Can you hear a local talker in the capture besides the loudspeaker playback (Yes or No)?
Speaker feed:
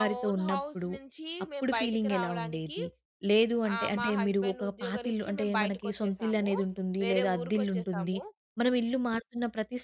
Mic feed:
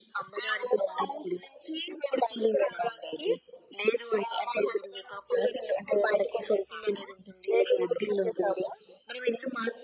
No